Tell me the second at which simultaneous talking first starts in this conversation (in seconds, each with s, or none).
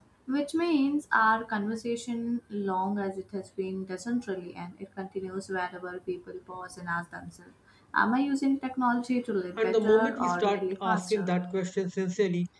9.6 s